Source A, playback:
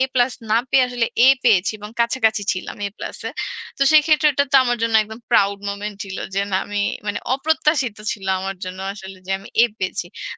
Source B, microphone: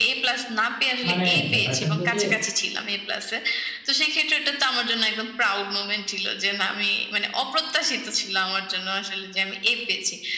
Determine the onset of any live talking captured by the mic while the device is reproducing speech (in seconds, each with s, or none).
1.1 s